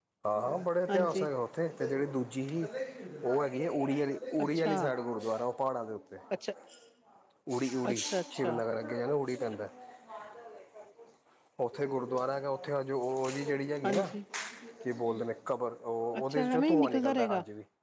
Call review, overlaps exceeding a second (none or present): present